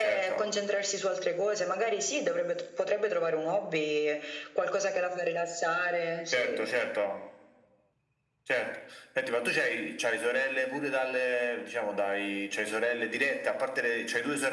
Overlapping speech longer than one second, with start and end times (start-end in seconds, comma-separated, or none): none